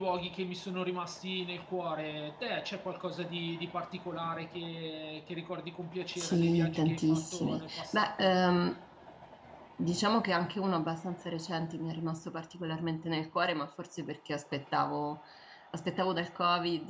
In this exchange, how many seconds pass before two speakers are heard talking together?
6.2 s

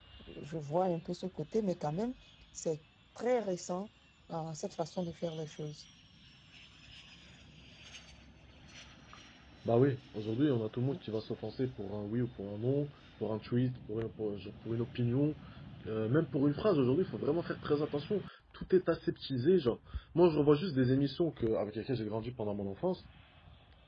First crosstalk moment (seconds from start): none

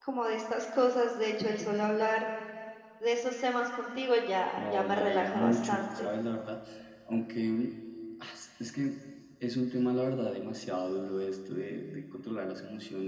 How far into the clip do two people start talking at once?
4.6 s

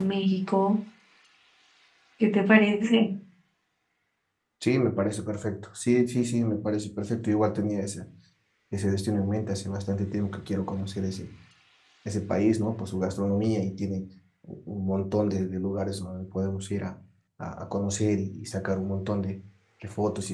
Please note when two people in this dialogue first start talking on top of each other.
none

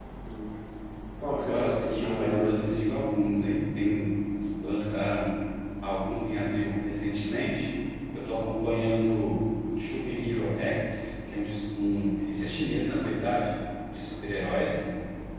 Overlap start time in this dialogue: 1.3 s

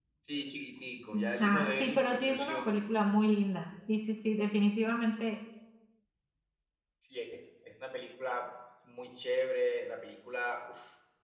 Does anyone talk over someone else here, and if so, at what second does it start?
1.1 s

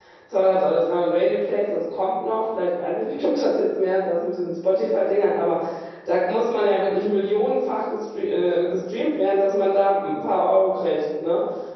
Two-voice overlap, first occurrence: none

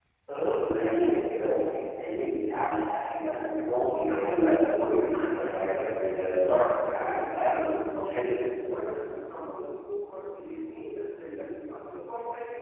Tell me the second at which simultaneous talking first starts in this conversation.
3.8 s

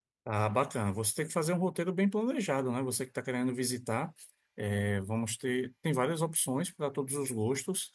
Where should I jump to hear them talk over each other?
none

